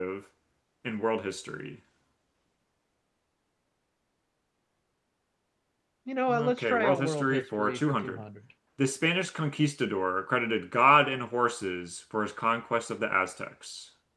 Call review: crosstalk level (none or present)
present